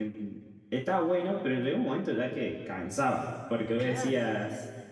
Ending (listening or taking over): listening